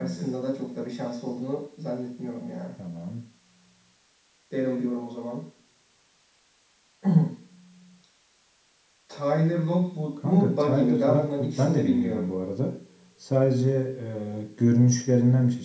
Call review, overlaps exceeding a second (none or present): present